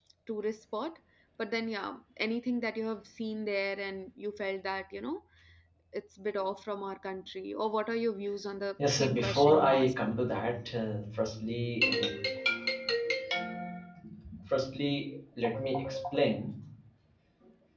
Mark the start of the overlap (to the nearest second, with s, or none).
9 s